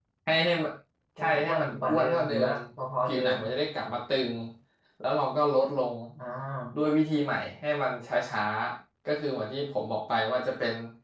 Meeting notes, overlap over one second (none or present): present